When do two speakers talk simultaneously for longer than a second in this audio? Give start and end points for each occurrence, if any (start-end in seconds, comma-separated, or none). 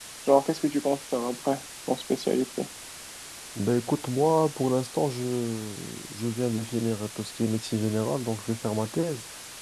none